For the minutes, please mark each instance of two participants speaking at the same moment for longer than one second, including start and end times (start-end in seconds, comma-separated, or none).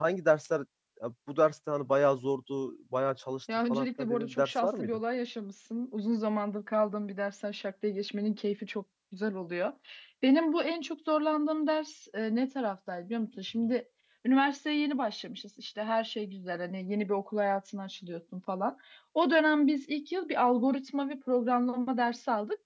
3.7-5.0